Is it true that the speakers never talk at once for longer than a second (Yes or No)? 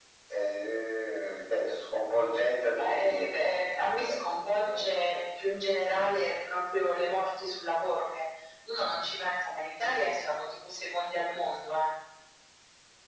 No